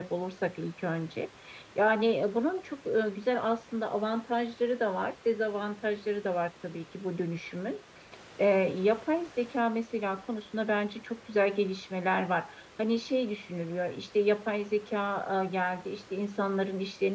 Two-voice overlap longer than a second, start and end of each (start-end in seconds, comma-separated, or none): none